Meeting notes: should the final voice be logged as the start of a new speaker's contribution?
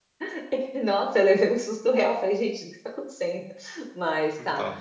No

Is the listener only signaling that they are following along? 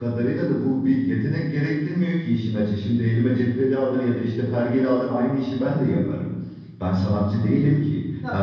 Yes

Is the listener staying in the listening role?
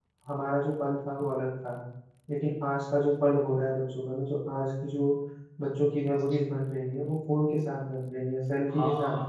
No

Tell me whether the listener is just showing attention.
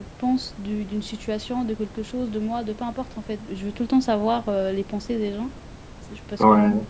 Yes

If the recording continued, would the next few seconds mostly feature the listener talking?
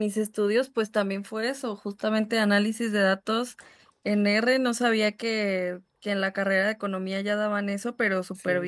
No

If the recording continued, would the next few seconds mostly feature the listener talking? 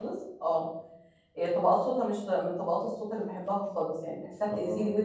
No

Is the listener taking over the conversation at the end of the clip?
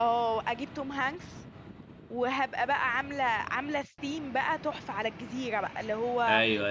No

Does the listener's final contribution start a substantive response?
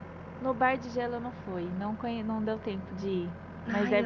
Yes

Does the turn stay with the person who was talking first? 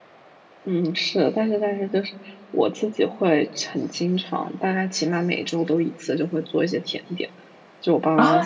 No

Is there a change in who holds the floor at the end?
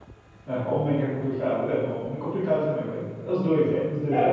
Yes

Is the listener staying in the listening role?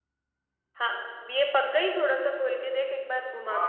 No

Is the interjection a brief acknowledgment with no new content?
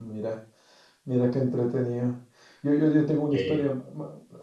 Yes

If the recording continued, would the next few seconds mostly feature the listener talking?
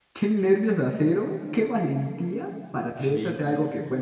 No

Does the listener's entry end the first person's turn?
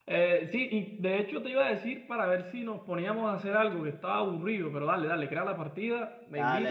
Yes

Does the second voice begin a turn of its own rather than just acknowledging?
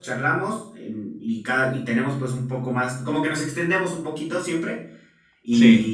No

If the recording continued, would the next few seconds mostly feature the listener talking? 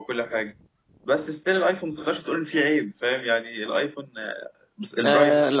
Yes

